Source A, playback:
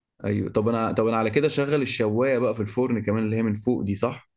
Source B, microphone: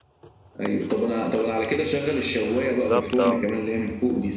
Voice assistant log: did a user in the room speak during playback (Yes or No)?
Yes